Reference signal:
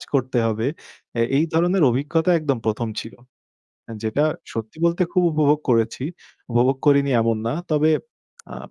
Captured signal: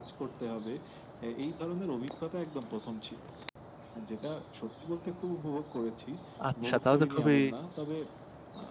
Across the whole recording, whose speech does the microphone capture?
both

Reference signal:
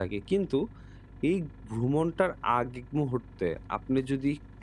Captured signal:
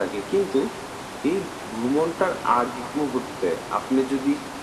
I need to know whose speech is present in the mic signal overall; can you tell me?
echo only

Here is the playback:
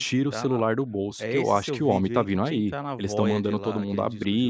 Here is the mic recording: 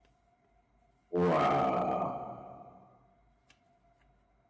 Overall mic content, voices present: user only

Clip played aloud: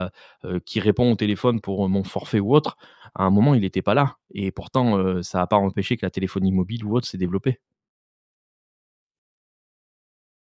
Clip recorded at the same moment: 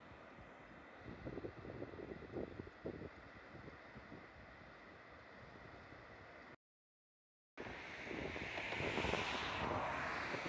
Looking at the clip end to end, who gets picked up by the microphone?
neither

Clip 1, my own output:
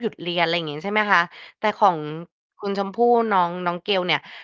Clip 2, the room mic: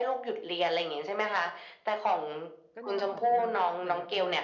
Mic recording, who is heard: both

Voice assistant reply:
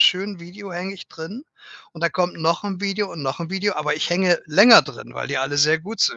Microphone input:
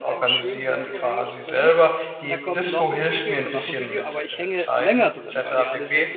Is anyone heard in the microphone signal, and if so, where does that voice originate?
both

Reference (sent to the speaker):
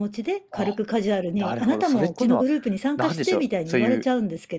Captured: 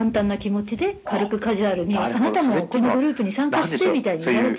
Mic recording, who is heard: echo only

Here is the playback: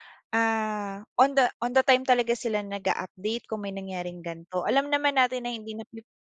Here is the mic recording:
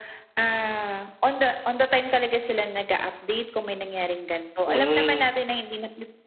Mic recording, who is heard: both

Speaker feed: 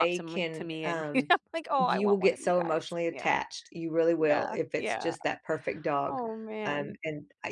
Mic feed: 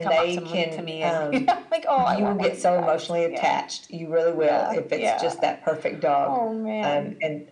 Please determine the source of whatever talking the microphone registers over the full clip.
echo only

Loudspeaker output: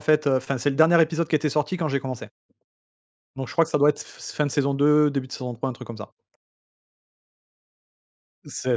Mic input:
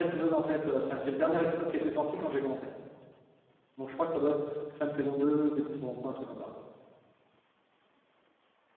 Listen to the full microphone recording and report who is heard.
echo only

